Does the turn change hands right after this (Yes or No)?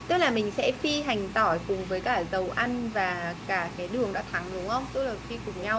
Yes